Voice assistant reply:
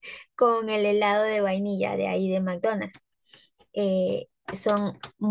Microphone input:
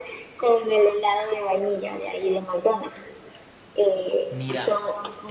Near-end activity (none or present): present